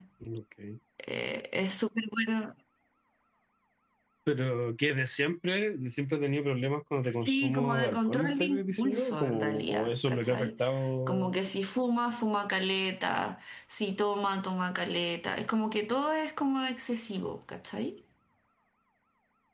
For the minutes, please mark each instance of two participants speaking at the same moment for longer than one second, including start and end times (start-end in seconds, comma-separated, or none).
7.0-10.5